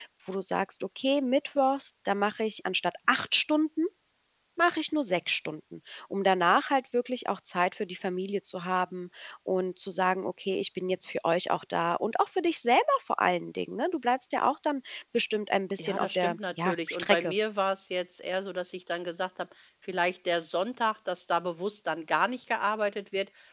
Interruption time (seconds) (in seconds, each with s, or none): 15.8 s